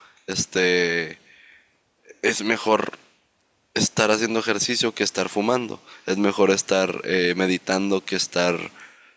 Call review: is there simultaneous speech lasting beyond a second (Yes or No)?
No